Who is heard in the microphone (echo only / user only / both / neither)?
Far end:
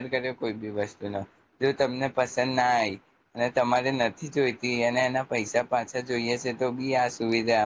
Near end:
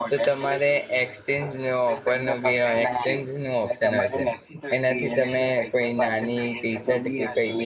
both